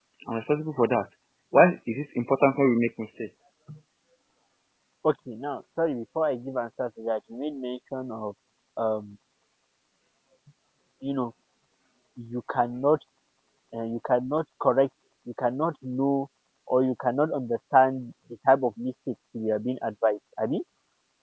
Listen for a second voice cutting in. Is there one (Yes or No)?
No